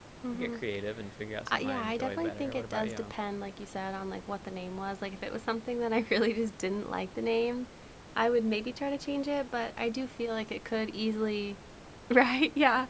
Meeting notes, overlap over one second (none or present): present